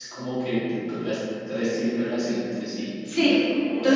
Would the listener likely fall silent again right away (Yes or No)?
No